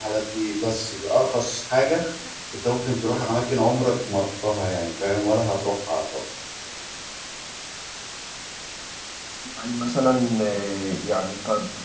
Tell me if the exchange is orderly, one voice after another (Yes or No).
Yes